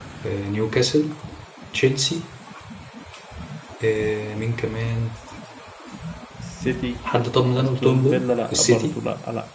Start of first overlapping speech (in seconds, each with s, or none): 7.6 s